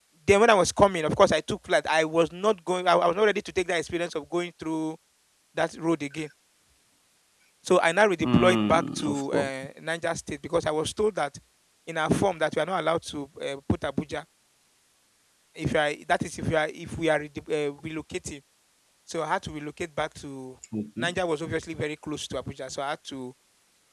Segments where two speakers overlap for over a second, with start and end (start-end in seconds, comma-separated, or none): 8.2-9.5